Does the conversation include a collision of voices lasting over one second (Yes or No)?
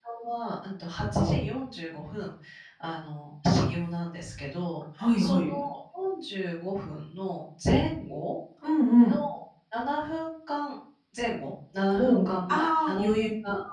Yes